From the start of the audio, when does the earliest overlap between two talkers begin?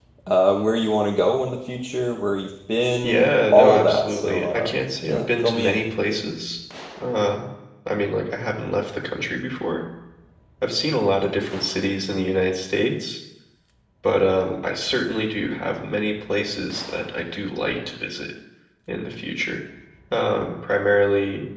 3.0 s

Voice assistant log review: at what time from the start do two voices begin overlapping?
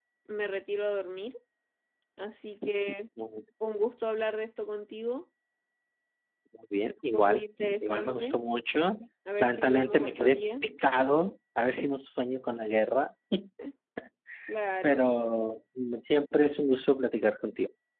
7.1 s

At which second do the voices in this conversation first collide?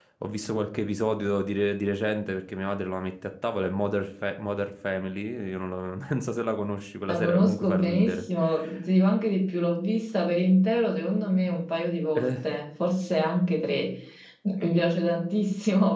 7.0 s

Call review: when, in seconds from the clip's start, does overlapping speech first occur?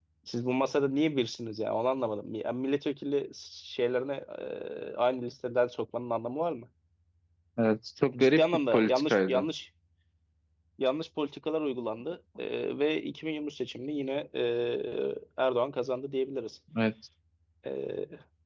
8.2 s

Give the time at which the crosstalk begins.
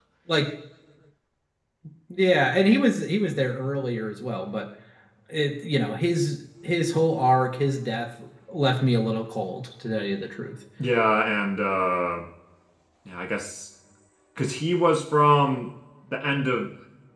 none

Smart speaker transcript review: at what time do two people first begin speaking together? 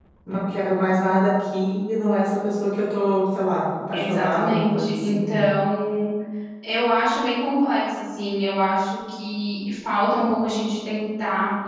3.9 s

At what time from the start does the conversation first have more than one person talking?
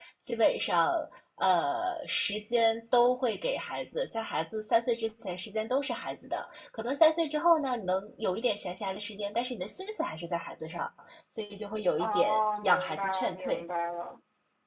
12.0 s

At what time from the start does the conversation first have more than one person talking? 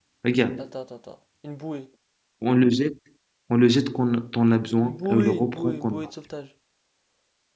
4.8 s

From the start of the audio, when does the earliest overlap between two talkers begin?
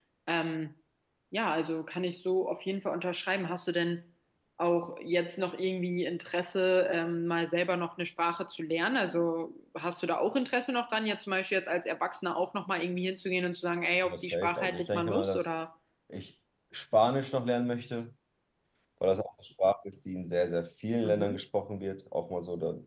14.1 s

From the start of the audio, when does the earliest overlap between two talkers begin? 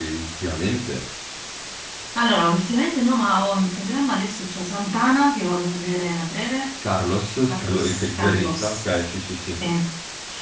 7.5 s

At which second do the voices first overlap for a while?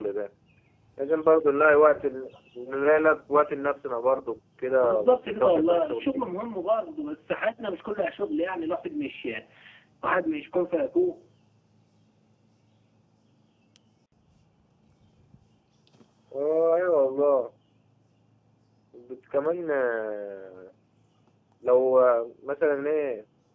4.8 s

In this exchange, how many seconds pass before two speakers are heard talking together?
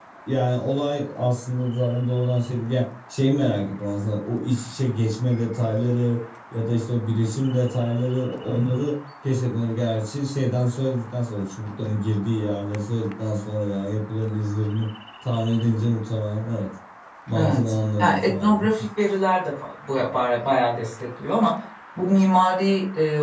17.3 s

